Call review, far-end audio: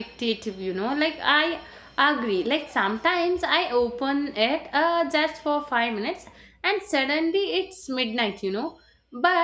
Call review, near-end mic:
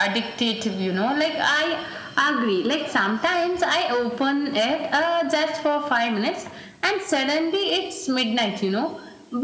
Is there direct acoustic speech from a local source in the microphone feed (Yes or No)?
No